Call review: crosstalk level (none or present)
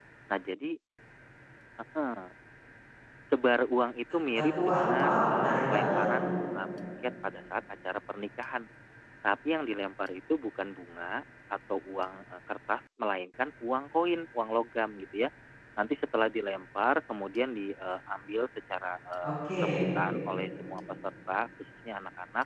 present